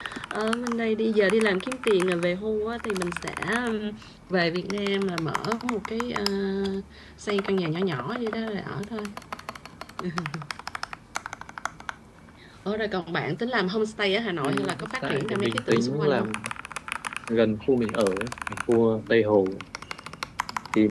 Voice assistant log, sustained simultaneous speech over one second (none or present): present